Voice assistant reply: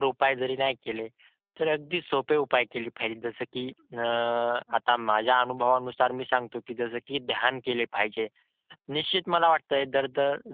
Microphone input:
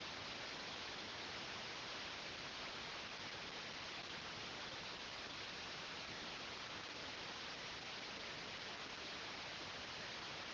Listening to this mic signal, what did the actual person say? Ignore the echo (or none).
none